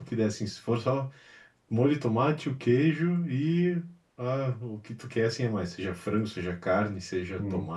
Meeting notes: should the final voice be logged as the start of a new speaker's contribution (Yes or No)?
No